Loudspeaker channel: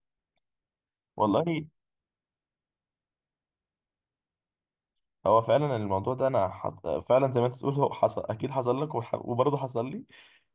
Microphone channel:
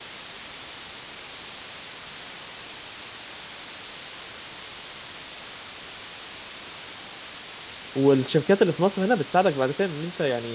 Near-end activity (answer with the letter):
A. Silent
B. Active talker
B